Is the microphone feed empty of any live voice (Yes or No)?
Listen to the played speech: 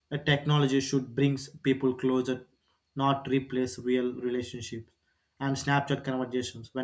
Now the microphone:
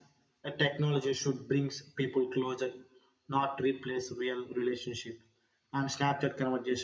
Yes